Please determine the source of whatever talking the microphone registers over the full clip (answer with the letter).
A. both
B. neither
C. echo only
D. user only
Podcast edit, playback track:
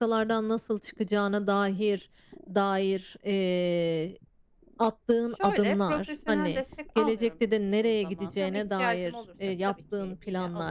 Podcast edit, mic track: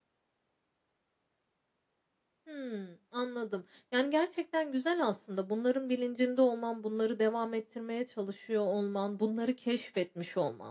D